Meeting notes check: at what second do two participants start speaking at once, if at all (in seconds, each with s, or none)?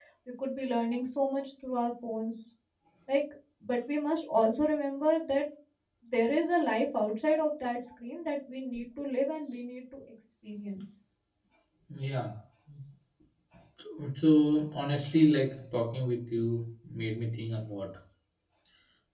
none